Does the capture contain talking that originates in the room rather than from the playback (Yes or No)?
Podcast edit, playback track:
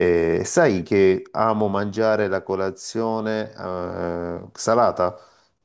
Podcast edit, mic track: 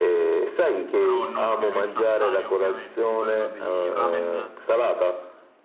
Yes